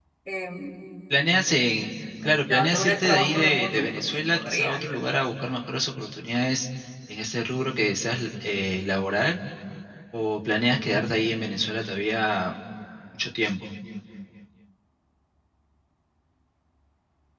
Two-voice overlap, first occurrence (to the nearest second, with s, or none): 2 s